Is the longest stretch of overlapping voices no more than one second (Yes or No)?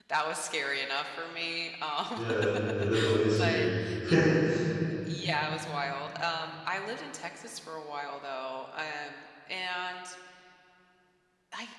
Yes